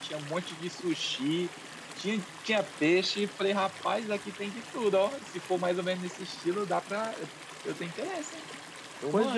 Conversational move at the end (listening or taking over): taking over